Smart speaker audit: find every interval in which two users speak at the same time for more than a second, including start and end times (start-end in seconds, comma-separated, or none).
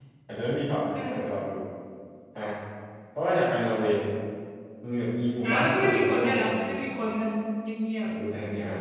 5.4-6.8